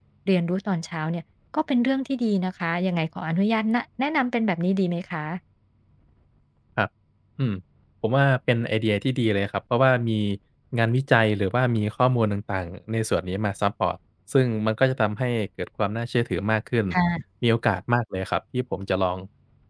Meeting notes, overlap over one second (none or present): none